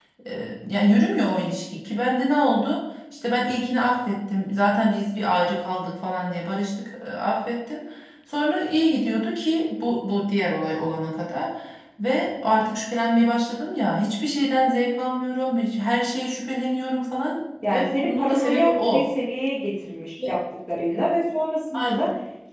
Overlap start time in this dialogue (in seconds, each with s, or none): 17.7 s